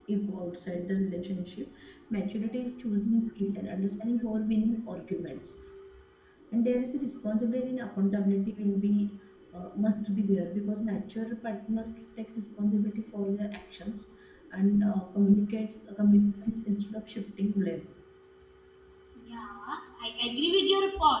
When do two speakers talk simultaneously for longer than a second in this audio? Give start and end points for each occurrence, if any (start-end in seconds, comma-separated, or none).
none